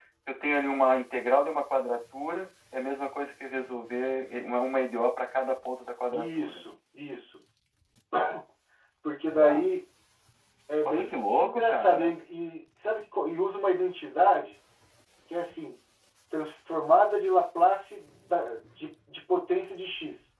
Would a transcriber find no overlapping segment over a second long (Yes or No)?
No